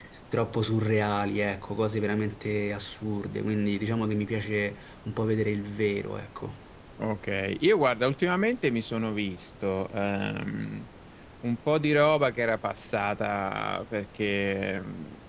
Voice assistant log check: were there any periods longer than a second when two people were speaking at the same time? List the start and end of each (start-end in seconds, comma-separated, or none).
none